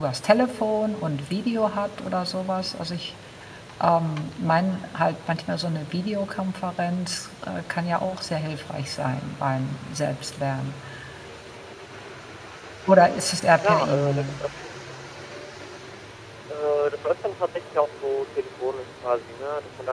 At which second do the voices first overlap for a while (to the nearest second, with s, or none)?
13 s